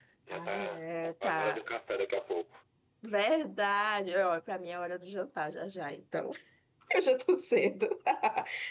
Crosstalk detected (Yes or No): Yes